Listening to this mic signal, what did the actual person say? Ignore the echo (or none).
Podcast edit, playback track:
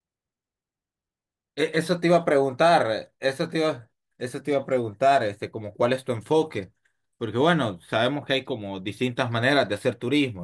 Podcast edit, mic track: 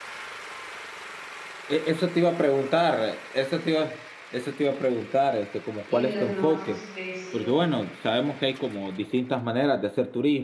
y de las nuevas especies,